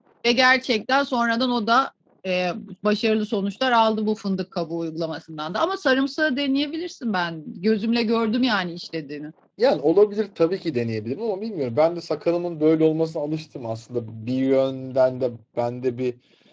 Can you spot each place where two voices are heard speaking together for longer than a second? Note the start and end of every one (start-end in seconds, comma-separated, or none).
none